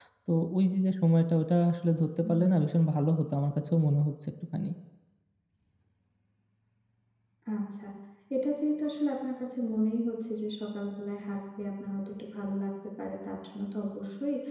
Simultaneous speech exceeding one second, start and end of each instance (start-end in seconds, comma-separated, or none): none